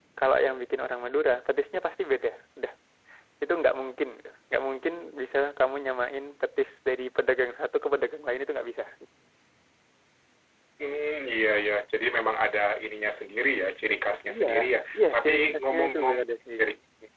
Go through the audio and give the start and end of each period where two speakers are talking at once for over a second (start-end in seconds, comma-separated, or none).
14.9-16.2